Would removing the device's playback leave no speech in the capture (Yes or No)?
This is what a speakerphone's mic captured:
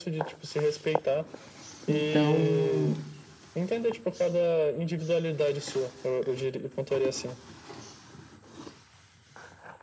No